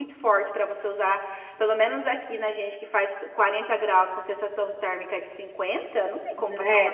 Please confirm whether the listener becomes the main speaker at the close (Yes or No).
Yes